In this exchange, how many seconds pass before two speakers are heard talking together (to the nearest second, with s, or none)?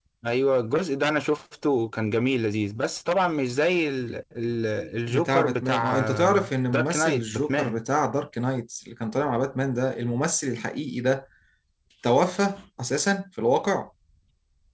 5 s